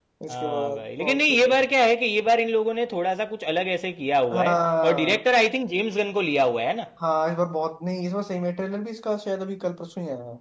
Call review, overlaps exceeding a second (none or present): present